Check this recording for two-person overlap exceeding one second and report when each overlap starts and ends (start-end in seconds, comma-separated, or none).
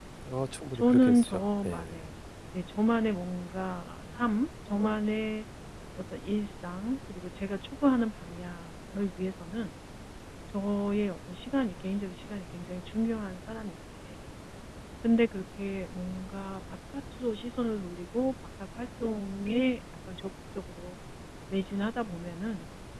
0.7-2.1